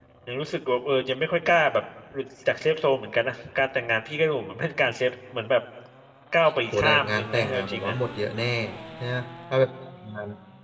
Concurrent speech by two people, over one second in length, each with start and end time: 6.7-8.0

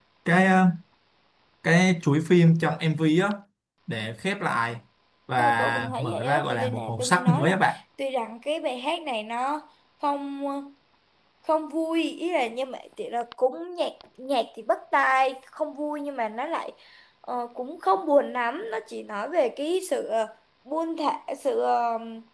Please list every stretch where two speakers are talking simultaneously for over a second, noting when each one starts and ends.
5.4-7.6

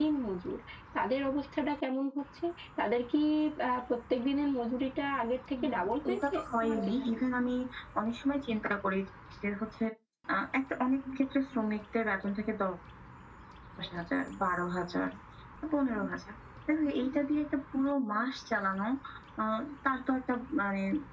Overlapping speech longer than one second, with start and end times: 5.7-7.2

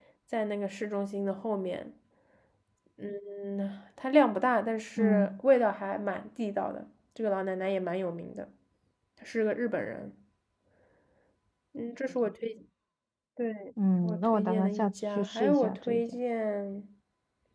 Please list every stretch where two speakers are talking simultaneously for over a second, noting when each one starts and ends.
14.0-16.0

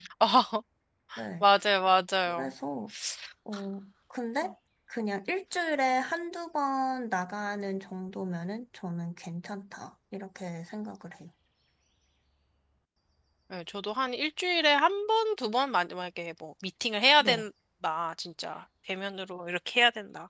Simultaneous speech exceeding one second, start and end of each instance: none

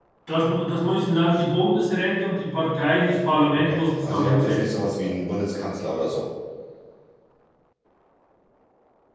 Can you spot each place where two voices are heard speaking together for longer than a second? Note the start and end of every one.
3.5-4.9

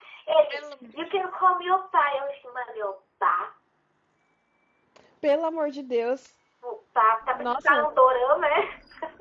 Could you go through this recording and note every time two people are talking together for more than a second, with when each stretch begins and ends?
none

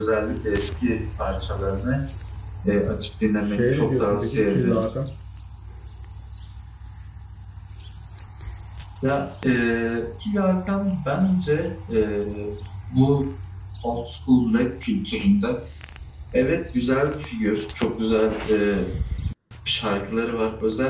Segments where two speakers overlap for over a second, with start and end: 3.4-4.8

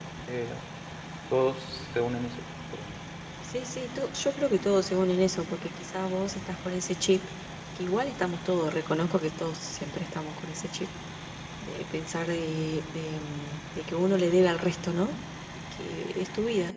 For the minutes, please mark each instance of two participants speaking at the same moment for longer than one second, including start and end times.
none

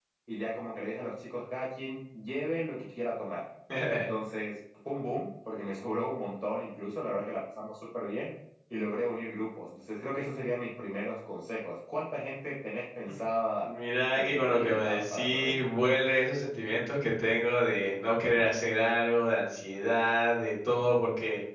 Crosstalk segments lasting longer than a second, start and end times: 14.1-15.6

